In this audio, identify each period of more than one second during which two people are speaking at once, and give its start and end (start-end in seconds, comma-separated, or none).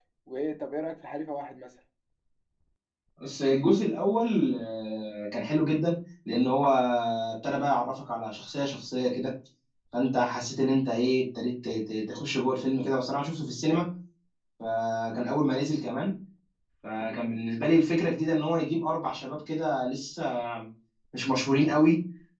none